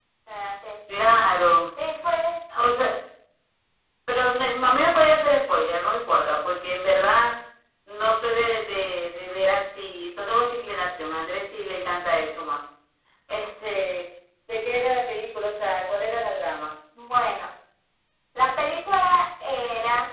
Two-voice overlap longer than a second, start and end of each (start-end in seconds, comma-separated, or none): none